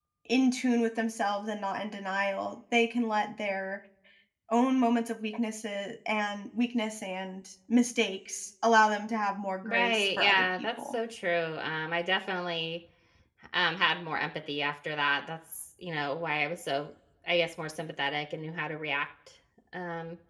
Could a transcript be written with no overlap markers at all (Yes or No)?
No